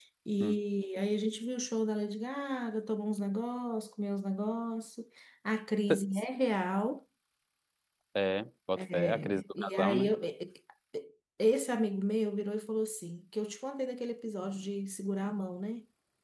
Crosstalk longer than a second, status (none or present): present